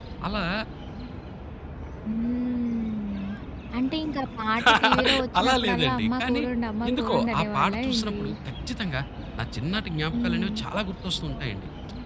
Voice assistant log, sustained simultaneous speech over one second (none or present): present